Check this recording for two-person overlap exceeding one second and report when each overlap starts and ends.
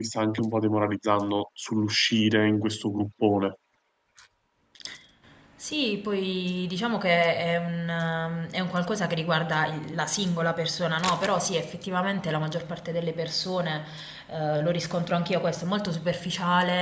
none

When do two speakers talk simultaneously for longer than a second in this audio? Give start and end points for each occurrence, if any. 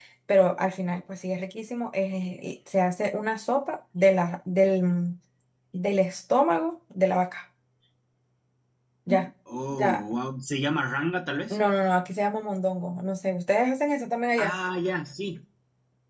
none

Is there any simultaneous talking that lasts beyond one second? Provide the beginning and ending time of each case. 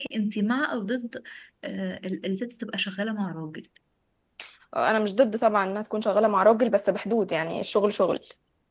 none

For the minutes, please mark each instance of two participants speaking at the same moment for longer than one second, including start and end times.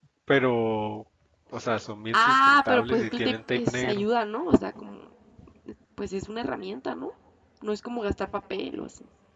2.1-4.0

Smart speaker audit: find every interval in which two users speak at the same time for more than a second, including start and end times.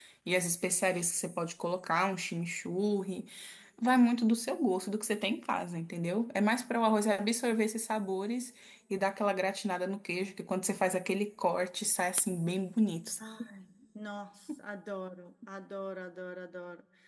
none

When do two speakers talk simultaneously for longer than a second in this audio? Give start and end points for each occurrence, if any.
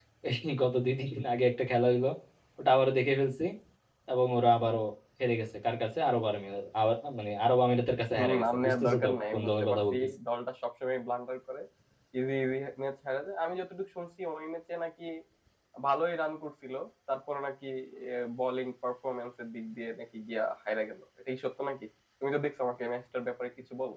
8.2-10.1

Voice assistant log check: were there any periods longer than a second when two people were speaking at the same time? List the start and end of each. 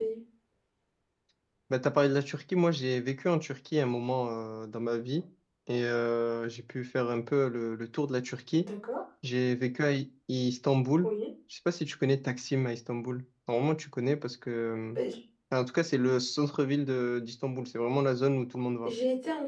none

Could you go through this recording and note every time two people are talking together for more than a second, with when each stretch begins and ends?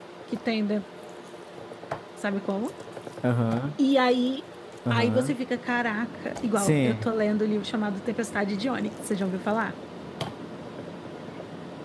none

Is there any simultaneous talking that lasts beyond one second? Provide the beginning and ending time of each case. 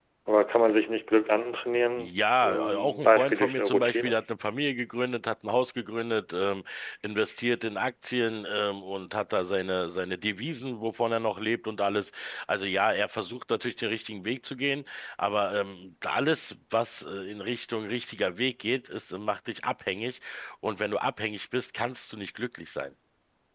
2.0-4.2

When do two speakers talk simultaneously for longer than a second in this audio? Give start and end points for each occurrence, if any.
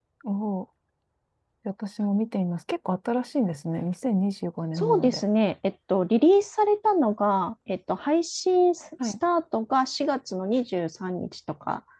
none

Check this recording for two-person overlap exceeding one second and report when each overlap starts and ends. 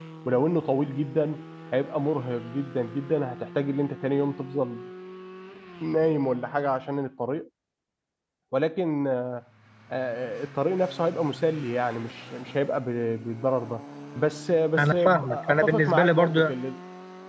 14.8-16.5

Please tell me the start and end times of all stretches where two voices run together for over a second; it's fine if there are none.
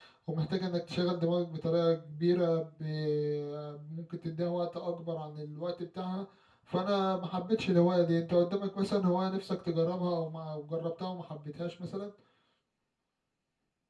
none

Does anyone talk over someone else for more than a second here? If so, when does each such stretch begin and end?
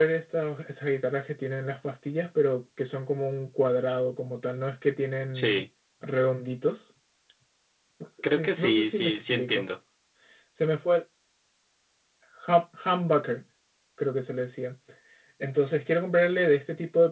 8.3-9.7

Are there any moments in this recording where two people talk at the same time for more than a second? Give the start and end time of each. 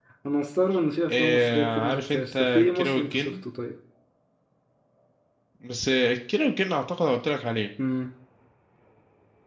1.1-3.4

